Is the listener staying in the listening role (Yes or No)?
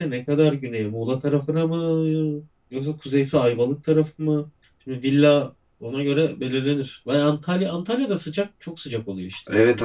No